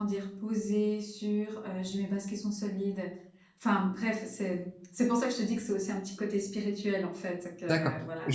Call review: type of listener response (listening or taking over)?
taking over